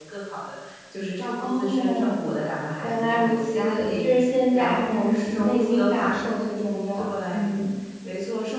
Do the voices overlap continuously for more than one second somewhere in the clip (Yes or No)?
Yes